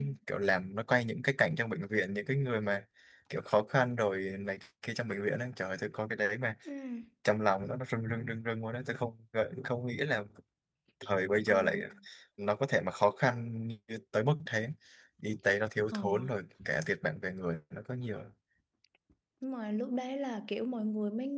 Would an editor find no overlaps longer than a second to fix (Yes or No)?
Yes